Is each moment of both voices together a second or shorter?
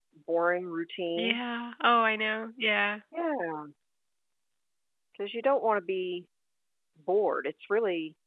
Yes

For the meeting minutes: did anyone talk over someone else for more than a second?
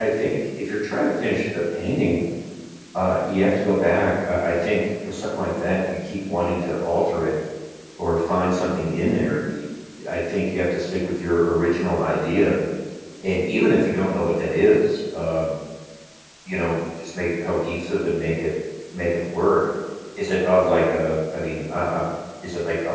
No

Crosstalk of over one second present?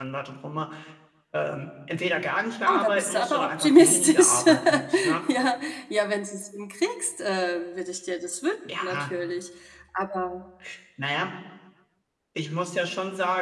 Yes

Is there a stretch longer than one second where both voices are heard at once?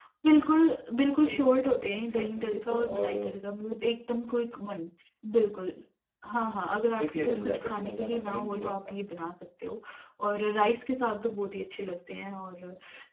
Yes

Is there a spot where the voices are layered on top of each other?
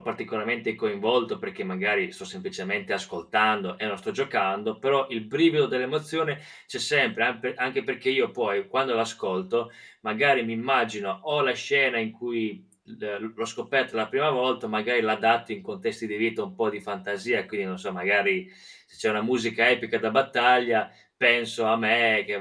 No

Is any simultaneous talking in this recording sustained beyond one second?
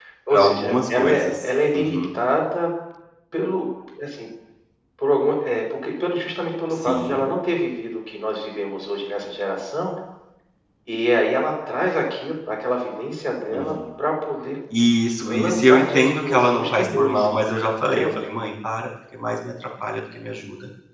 Yes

